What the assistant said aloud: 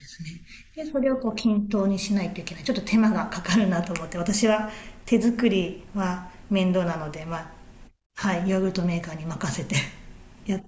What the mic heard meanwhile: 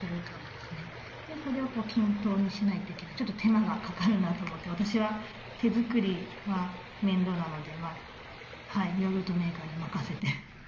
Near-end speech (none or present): none